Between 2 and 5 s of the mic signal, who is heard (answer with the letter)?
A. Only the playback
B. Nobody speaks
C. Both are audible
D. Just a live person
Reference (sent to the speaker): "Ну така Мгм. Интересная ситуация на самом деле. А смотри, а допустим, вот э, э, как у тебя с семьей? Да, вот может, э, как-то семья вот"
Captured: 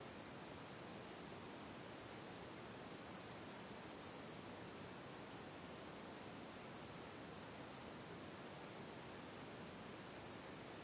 B